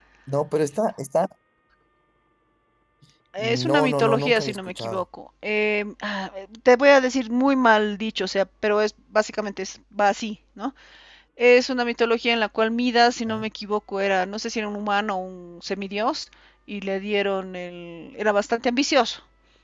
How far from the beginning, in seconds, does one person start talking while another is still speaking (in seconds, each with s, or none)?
3.4 s